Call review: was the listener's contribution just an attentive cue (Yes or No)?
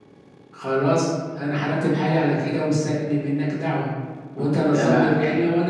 Yes